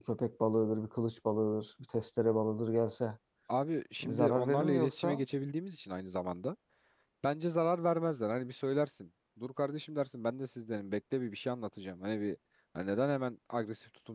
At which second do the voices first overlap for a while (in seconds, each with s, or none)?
4.0 s